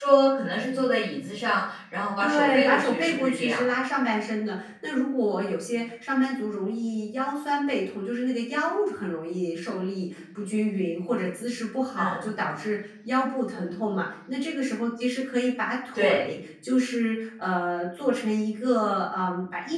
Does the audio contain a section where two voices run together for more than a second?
Yes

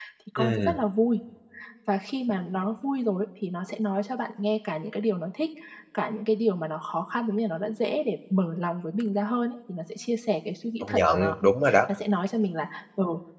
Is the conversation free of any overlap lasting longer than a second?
Yes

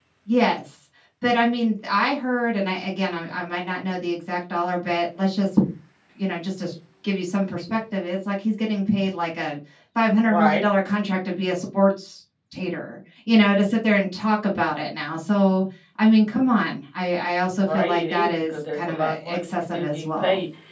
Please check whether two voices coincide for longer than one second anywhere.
Yes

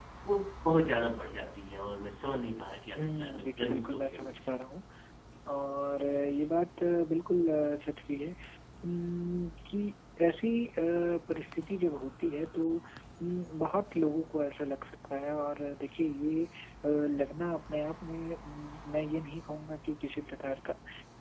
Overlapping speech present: Yes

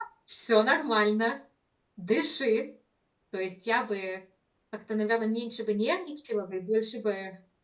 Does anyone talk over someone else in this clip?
No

